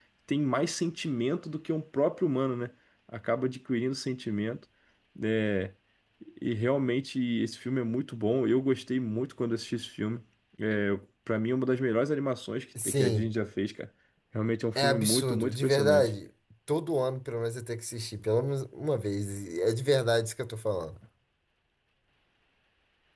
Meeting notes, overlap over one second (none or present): present